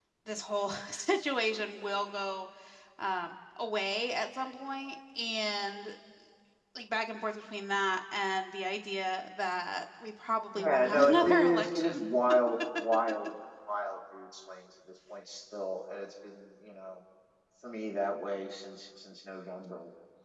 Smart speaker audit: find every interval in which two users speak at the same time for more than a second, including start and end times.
10.5-12.0

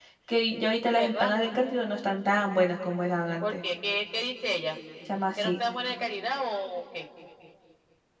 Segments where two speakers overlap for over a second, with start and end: none

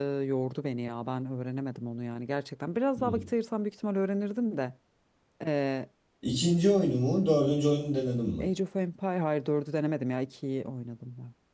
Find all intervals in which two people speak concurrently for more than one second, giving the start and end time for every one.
none

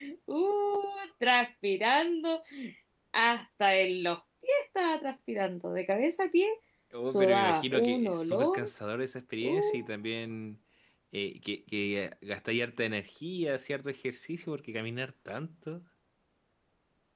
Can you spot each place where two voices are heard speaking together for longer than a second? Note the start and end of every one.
7.1-8.6

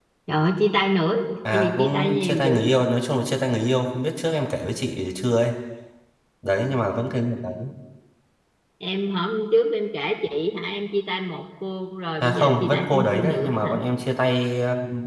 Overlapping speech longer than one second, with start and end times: 1.5-2.8, 12.2-13.7

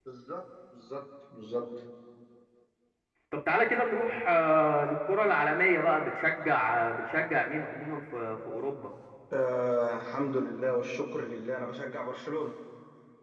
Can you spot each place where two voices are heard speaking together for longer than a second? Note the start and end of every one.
none

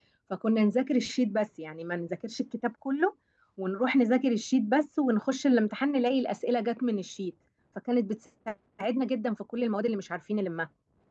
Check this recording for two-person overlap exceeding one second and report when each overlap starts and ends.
none

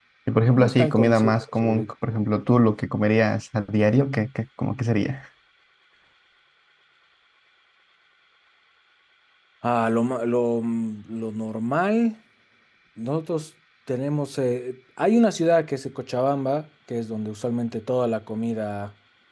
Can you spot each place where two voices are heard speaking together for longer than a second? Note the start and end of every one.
0.5-1.9

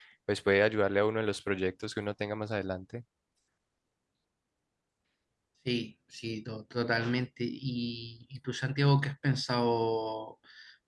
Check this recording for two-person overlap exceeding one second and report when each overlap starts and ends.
none

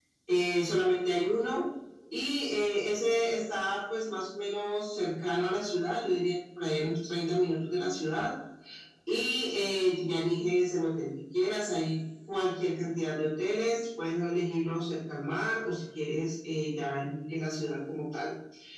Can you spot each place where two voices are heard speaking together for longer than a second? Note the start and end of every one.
none

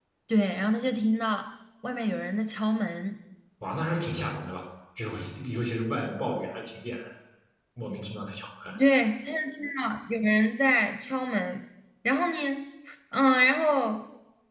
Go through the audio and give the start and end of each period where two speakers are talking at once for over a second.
none

